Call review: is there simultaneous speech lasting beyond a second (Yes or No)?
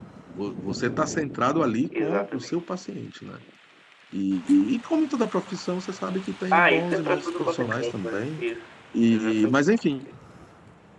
Yes